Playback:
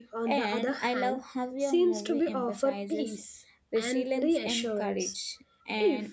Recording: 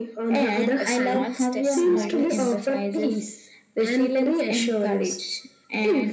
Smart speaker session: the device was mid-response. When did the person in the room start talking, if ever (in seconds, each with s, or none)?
0.8 s